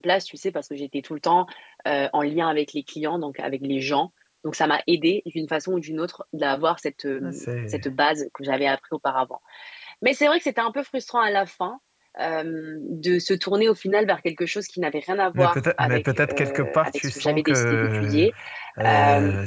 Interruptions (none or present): present